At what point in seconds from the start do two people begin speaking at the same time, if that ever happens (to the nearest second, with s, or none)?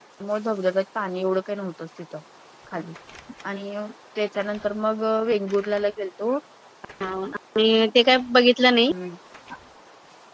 none